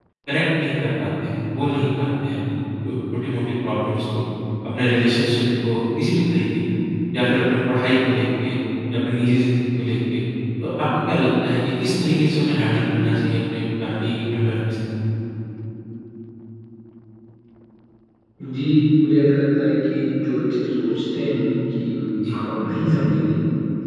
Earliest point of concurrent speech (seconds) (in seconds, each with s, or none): none